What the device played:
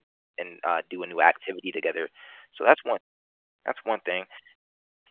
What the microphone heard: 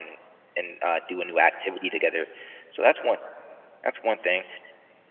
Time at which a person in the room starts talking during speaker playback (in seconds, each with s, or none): none